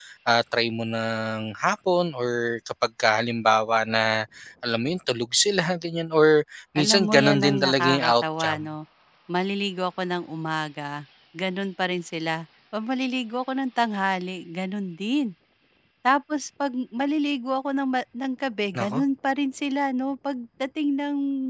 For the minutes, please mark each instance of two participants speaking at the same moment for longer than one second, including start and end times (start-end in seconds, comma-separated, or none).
6.8-8.6